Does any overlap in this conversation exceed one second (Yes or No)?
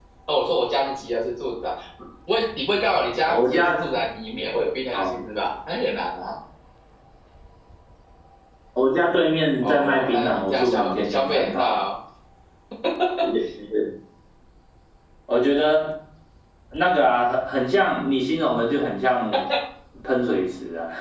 Yes